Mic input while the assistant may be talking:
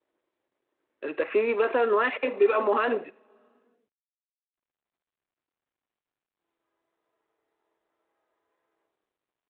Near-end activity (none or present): present